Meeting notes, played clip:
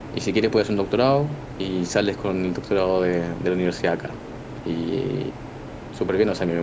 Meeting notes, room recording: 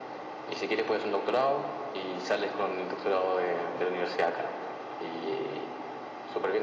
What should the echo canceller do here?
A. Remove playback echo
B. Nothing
A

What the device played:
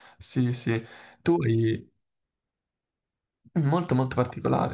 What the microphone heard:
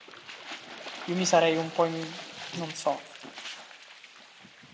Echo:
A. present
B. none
B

